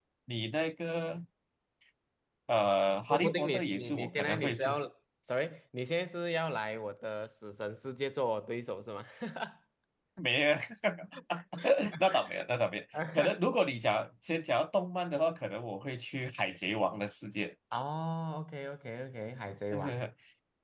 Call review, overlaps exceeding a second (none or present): present